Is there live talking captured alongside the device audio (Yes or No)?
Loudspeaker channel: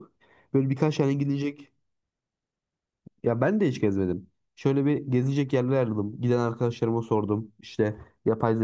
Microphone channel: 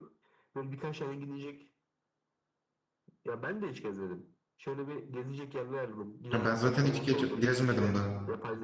Yes